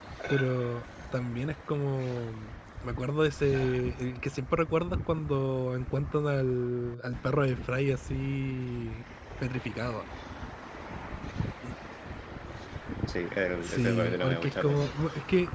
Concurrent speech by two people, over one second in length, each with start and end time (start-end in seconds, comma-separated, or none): 13.6-15.0